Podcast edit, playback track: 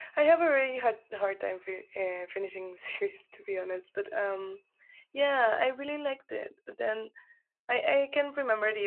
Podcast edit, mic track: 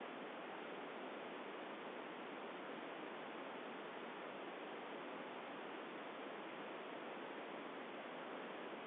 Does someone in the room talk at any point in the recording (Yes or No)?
No